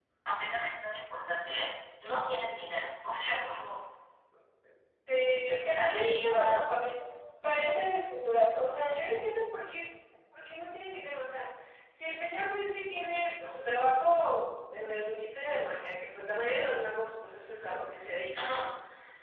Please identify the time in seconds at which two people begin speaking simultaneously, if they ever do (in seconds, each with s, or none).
5.5 s